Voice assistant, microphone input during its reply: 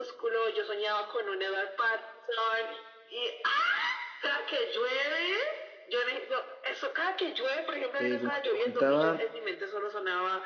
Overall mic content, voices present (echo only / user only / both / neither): both